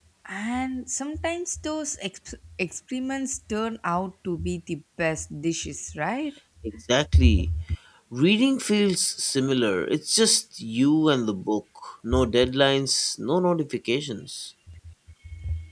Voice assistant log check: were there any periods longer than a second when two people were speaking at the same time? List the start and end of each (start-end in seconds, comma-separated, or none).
none